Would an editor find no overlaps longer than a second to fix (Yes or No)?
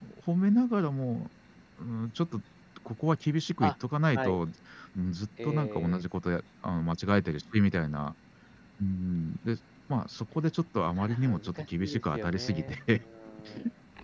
No